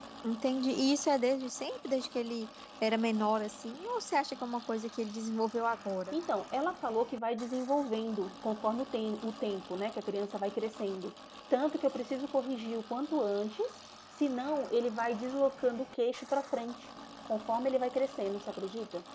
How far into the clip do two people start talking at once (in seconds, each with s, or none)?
none